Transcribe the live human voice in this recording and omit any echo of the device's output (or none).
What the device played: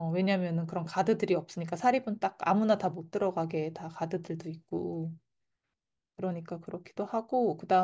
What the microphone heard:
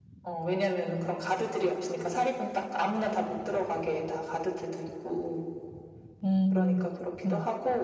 음, 그렇구나.